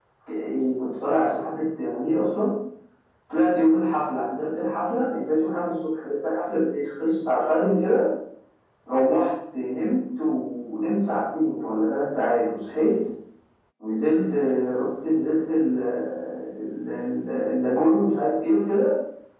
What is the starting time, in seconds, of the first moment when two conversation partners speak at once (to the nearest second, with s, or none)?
none